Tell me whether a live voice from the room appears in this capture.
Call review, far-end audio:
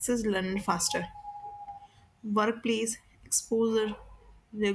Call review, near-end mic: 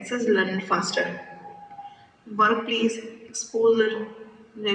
No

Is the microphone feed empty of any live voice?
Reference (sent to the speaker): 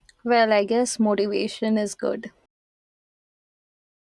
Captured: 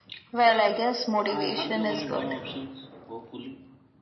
No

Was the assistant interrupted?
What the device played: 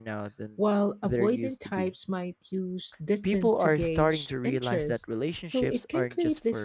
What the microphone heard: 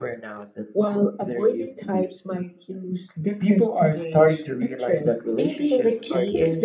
Yes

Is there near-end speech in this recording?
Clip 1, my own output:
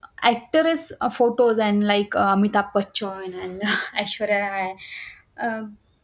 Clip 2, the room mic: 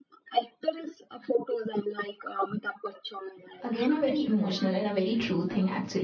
Yes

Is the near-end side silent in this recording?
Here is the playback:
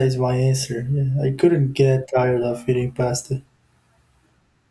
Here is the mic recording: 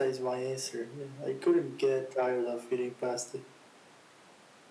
Yes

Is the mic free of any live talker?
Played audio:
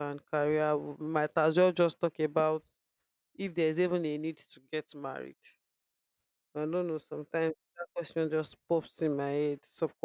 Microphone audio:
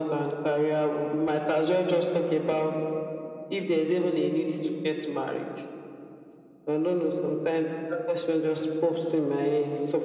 Yes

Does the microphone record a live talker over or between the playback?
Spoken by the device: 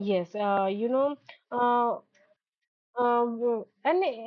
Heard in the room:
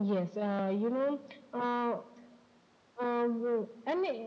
No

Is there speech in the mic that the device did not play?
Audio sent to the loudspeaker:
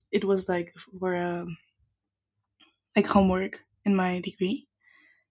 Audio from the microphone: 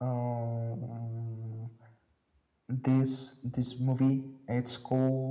Yes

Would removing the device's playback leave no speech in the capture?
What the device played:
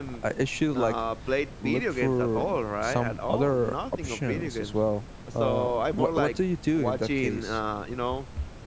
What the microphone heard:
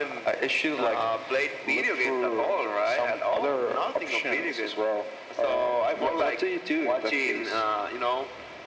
Yes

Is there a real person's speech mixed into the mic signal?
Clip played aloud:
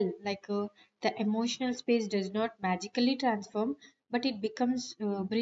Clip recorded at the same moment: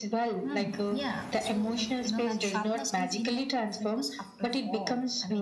Yes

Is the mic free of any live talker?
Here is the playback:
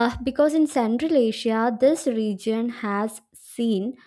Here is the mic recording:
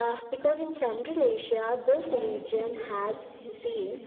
No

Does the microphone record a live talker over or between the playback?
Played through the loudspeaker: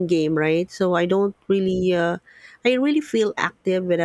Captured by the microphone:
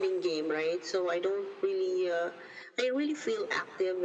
No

